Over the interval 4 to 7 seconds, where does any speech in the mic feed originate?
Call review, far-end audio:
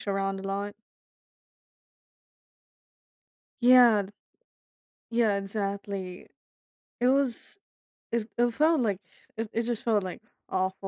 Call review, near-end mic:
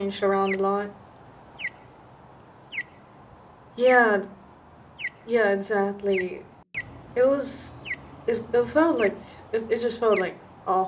echo only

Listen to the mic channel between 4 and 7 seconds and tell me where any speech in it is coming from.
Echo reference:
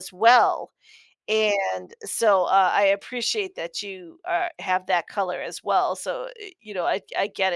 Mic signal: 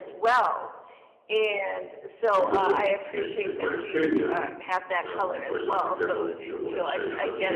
both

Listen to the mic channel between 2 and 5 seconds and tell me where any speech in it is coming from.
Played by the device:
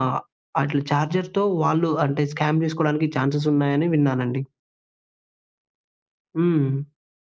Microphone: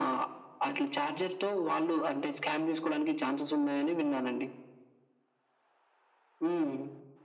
echo only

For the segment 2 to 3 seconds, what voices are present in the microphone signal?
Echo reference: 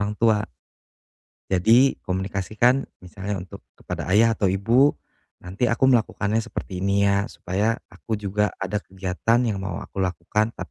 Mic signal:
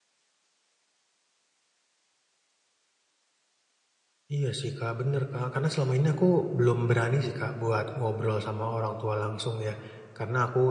neither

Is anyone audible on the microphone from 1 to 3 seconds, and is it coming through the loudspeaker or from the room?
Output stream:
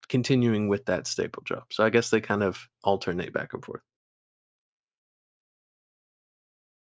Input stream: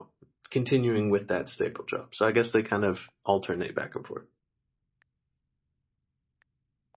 echo only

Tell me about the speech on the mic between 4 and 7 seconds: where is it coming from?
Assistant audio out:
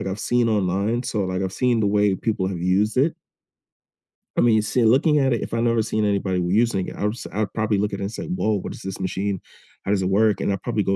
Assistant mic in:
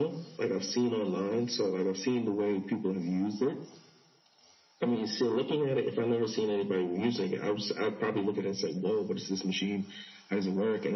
echo only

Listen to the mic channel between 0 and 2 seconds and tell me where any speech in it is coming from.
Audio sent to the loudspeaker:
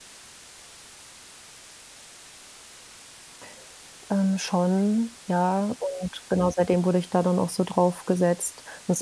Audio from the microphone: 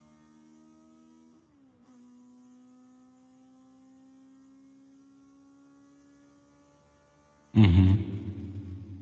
neither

